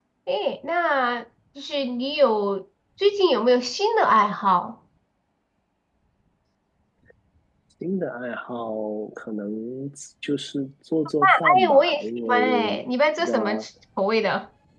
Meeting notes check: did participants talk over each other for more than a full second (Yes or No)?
Yes